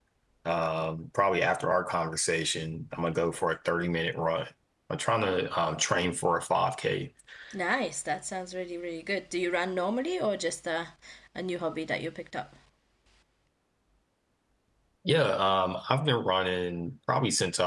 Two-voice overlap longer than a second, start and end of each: none

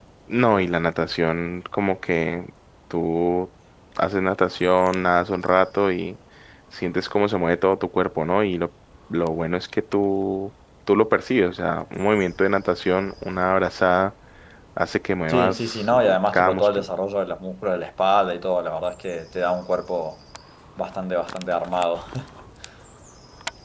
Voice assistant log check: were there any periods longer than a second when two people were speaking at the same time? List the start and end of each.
15.3-16.8

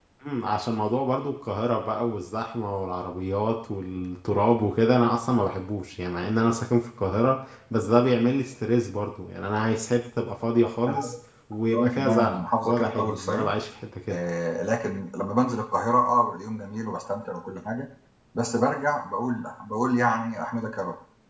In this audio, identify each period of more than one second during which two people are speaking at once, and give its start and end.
11.7-13.5

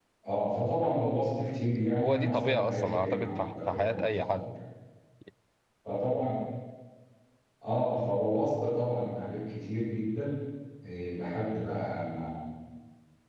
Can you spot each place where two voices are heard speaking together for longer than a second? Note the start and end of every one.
2.0-4.5

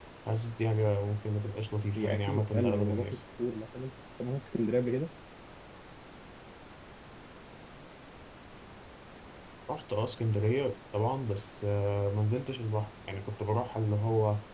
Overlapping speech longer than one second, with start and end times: 1.9-3.2

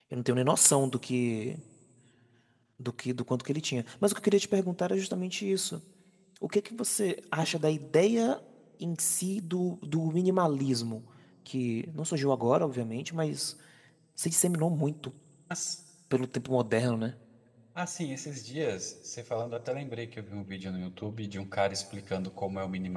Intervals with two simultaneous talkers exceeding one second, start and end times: none

